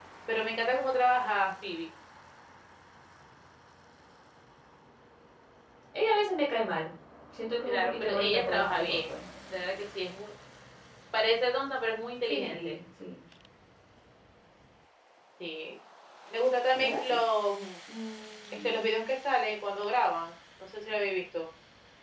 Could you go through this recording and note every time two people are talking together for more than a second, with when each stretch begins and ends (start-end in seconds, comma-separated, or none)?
7.7-9.0